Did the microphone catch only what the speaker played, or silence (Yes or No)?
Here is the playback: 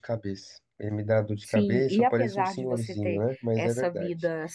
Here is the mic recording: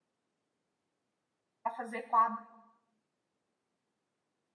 No